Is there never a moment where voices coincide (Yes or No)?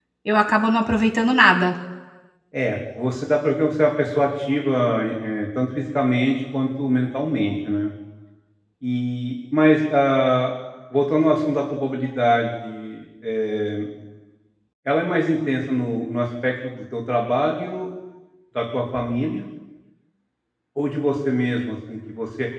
Yes